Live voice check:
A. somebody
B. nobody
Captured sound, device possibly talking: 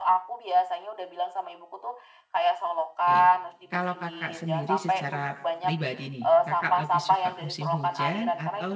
A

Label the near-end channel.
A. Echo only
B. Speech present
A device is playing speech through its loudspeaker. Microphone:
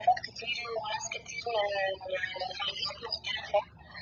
A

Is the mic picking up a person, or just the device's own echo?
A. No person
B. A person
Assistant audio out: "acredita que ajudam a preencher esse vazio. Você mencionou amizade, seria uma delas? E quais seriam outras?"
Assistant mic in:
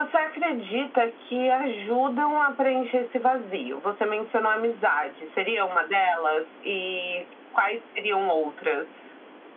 A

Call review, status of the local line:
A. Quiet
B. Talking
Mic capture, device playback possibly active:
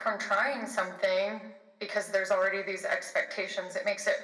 A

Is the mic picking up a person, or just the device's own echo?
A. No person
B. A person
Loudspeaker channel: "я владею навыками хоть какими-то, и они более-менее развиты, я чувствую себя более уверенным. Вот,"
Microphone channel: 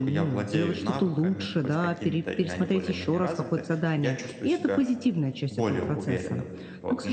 B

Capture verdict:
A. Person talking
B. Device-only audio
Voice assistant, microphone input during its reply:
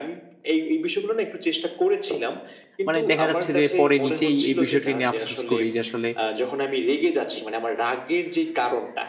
A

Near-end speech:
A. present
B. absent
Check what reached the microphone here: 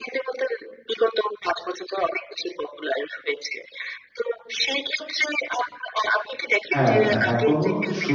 A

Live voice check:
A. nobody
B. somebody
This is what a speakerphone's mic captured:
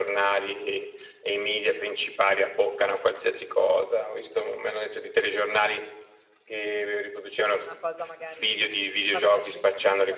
B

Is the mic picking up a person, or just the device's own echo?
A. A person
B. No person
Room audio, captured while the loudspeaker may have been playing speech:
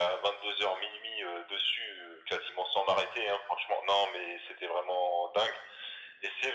B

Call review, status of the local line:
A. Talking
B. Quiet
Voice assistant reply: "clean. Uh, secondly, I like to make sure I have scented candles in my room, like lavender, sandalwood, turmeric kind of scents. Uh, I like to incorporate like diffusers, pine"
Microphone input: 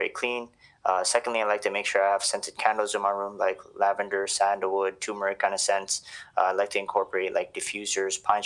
B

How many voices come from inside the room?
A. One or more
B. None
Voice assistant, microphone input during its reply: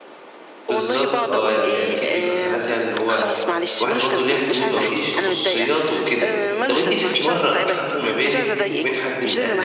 A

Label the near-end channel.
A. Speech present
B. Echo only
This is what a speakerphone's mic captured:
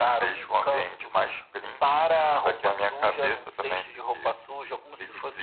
B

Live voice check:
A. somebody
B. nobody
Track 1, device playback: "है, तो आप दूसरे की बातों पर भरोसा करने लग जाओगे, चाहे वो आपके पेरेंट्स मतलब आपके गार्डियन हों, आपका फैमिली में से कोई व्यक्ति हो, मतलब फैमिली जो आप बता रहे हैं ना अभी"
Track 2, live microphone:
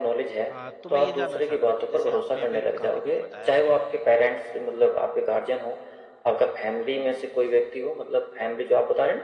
A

